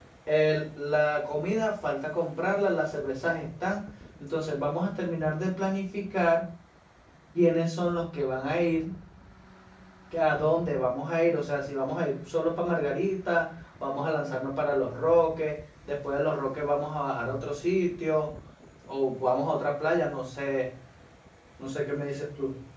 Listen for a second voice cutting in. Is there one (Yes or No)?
No